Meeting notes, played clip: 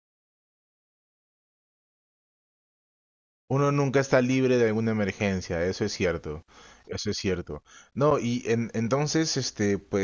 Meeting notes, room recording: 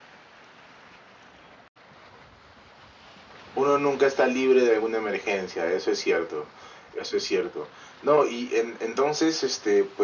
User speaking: No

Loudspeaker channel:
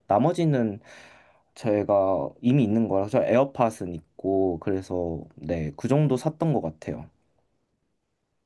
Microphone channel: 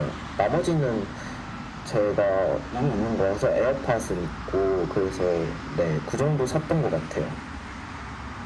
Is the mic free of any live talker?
Yes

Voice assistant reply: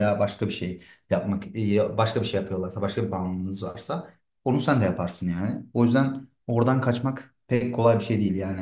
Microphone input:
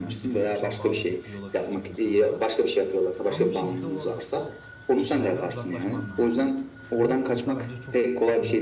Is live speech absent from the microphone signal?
No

